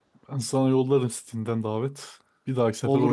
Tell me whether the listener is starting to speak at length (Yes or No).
Yes